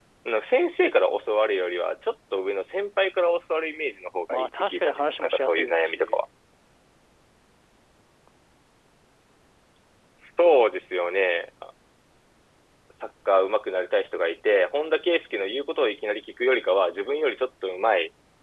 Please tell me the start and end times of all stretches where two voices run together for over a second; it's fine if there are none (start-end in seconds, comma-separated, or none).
4.3-6.2